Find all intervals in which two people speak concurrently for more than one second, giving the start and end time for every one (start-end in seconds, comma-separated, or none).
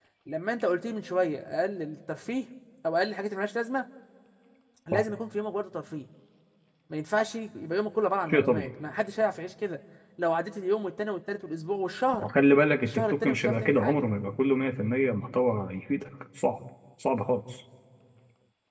12.8-14.1